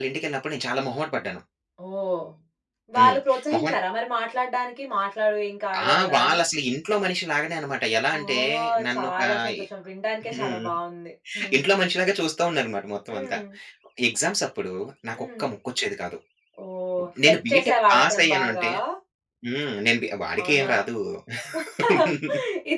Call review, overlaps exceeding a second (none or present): present